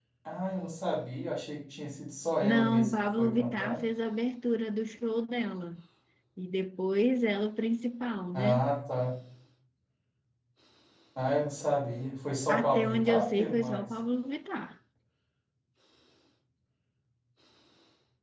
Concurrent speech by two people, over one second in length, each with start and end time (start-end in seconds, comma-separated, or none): 2.4-3.8, 12.5-13.9